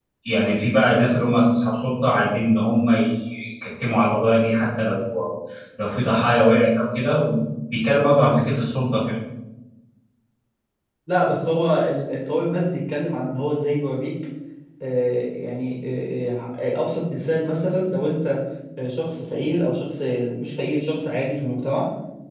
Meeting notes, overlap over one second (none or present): none